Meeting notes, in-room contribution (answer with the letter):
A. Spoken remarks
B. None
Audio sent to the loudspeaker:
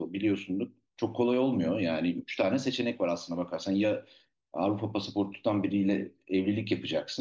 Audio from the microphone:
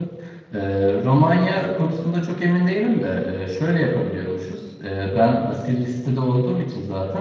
A